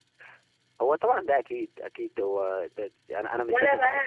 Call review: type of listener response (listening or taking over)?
taking over